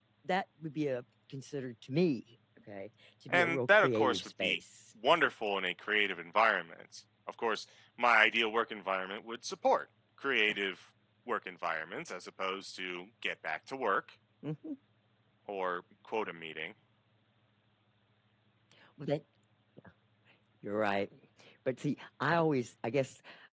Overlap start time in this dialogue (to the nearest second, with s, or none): 3 s